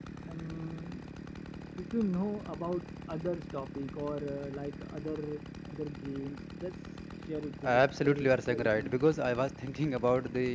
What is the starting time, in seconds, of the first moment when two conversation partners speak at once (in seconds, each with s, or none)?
7.6 s